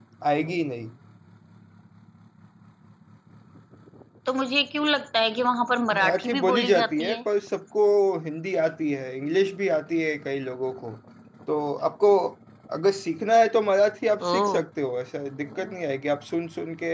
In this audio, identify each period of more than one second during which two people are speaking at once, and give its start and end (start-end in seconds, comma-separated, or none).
5.9-7.2